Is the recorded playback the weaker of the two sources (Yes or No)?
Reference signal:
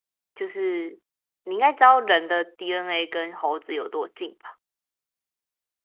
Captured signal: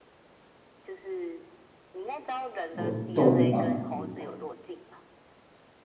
Yes